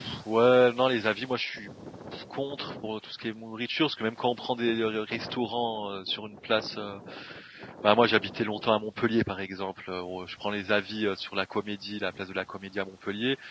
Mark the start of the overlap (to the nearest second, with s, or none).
none